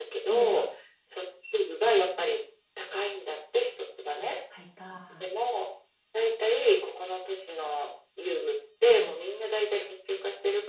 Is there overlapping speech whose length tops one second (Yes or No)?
No